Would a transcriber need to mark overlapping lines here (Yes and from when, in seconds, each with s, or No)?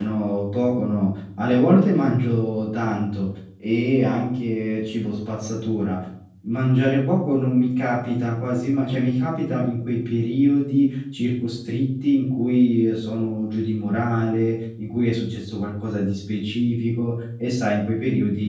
No